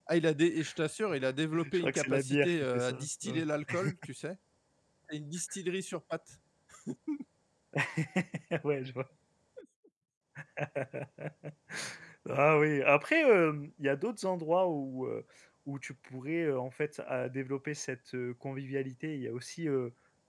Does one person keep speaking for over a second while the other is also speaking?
Yes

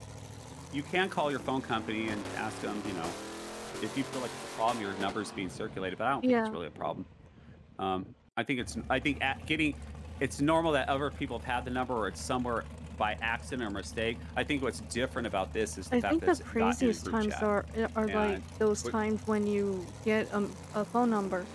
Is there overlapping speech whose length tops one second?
Yes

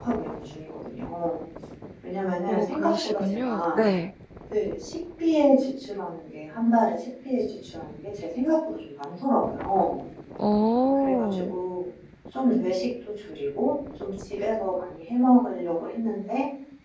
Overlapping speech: Yes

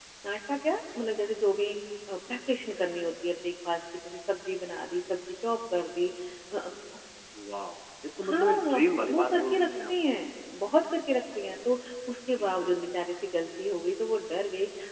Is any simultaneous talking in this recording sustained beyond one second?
Yes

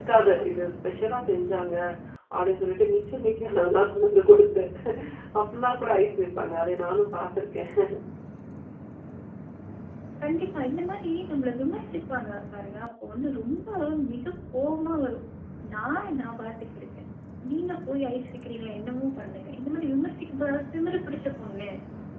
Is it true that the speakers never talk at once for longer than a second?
Yes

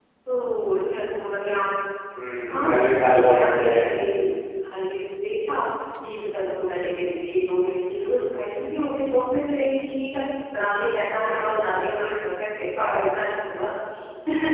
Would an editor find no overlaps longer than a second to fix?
No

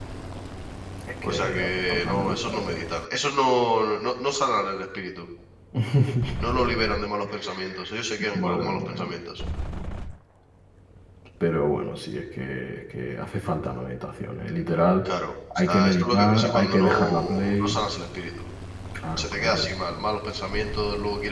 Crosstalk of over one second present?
Yes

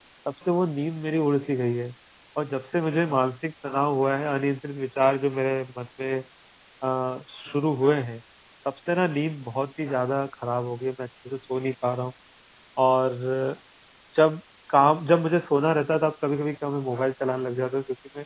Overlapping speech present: No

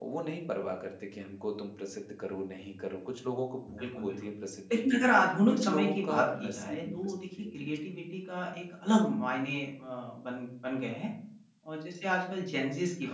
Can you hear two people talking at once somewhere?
Yes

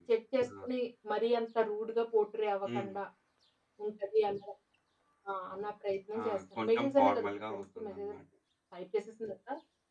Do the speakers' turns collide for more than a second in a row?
Yes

